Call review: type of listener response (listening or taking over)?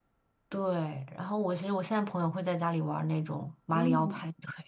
taking over